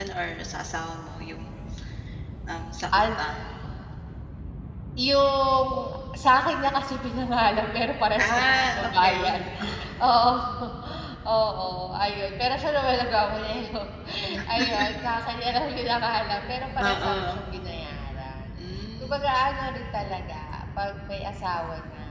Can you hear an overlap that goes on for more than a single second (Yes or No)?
Yes